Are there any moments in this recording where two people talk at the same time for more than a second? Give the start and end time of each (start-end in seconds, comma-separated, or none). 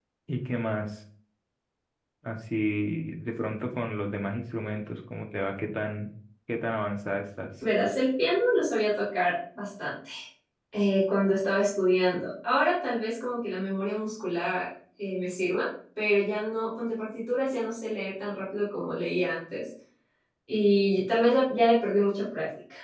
none